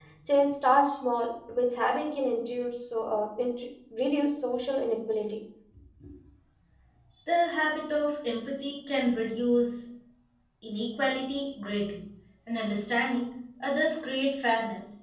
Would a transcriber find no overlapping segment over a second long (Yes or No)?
Yes